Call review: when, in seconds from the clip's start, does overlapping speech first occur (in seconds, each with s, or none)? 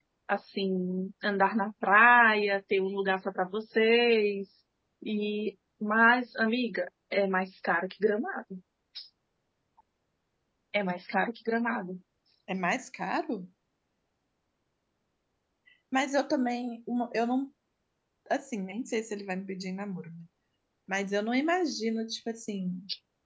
none